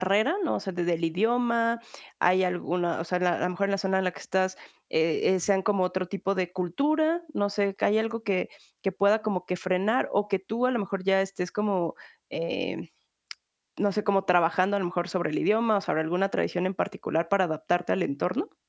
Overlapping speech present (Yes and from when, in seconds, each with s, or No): No